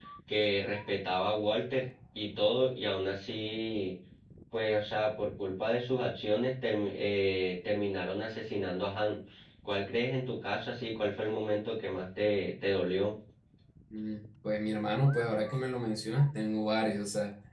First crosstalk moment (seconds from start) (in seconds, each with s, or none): none